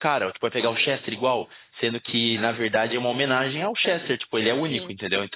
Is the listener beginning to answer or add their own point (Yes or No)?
No